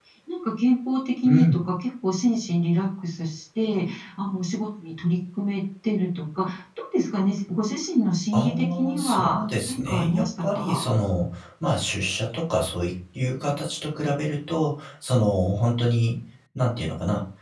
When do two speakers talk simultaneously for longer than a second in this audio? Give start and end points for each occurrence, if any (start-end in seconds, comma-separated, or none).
8.3-10.8